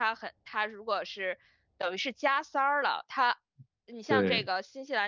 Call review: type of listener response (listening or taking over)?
listening